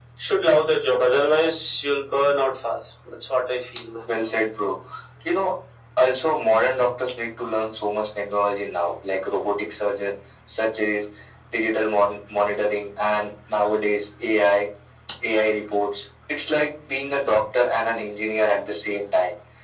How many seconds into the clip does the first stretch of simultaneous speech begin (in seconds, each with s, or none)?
none